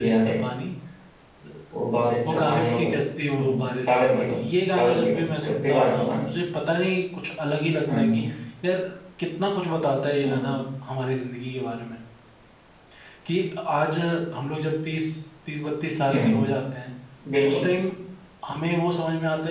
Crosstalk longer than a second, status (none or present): present